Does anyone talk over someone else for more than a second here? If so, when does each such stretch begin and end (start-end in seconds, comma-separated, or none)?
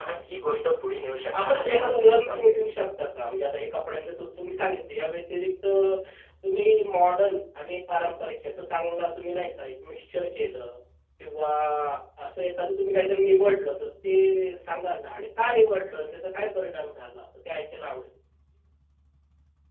1.4-2.6